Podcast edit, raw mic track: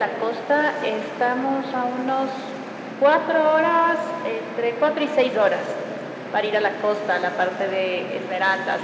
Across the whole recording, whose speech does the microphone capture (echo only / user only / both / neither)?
echo only